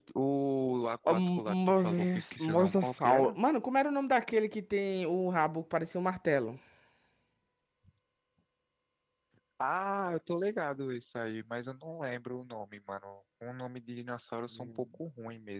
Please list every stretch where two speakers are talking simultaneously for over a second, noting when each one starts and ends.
1.1-3.4

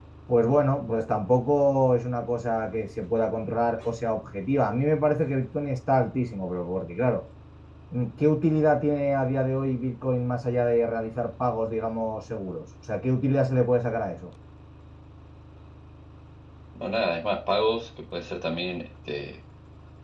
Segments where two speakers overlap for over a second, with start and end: none

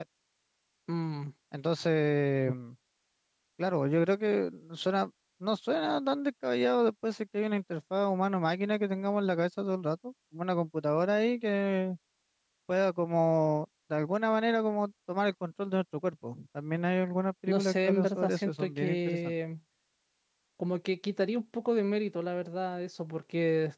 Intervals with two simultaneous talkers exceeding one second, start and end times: 17.5-19.3

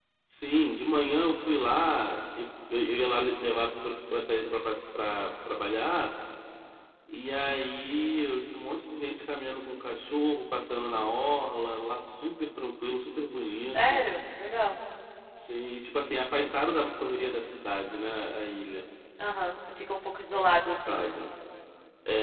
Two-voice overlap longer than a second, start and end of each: none

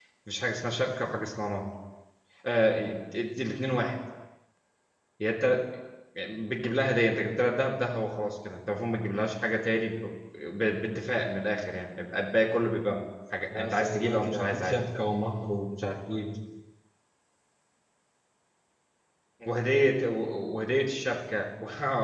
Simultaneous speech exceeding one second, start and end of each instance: 13.6-14.8

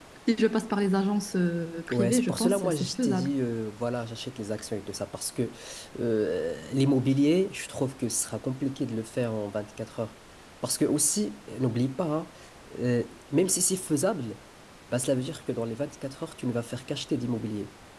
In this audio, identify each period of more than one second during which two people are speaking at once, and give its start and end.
1.9-3.3

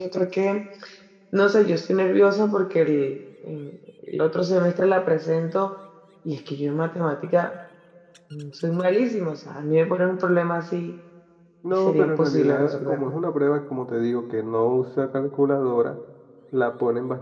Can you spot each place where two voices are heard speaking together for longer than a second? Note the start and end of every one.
11.7-13.0

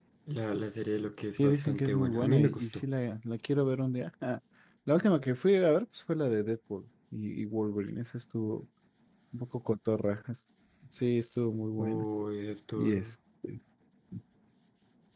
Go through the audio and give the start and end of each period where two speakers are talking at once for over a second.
1.3-2.6

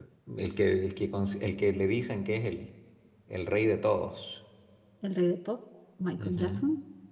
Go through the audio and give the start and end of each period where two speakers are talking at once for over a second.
none

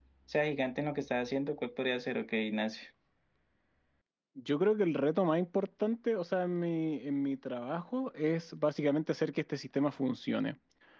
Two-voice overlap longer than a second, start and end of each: none

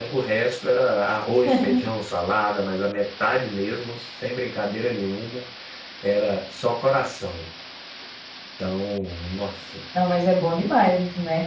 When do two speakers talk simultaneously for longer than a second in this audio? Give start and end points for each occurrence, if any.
none

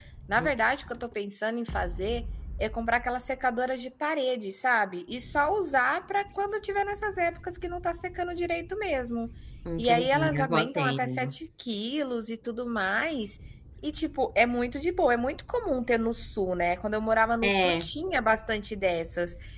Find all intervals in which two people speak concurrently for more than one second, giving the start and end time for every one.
9.8-11.3

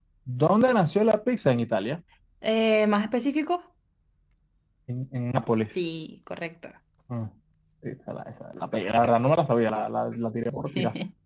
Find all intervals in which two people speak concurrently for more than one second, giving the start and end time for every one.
none

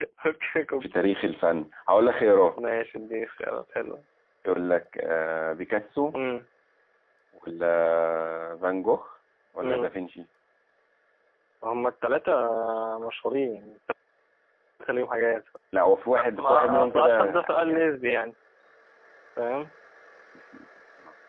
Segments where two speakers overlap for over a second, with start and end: 16.2-17.9

